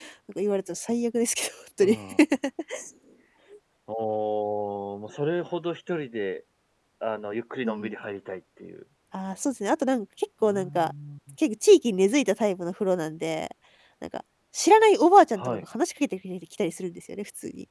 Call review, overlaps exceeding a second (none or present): none